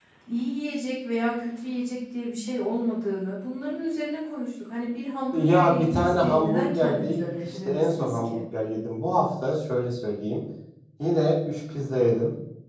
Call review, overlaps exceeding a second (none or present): present